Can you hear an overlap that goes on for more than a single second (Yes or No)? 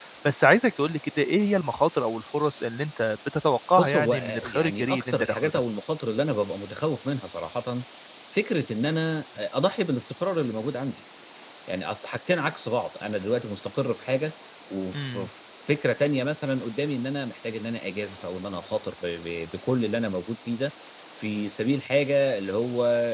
Yes